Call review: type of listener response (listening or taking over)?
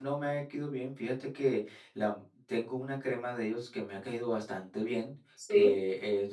listening